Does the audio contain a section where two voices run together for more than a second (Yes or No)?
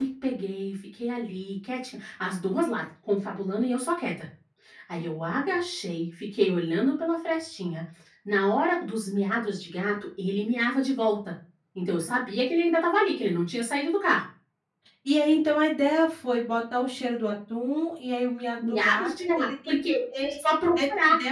Yes